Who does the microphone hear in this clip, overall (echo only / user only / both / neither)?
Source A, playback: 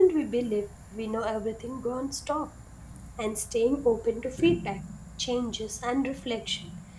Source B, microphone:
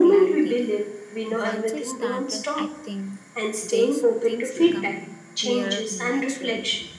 both